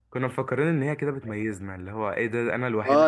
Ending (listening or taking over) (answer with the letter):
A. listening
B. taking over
B